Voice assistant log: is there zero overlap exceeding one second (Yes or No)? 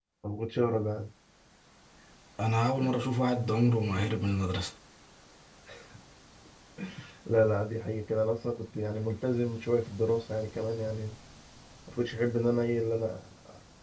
Yes